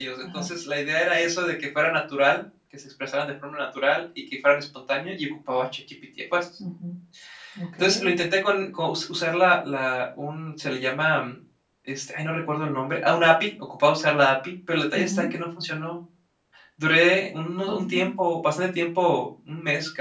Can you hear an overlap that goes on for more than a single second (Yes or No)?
No